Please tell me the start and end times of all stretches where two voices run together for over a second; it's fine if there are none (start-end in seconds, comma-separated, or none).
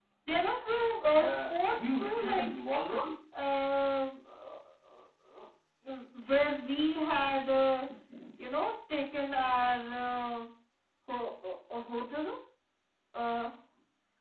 1.2-2.5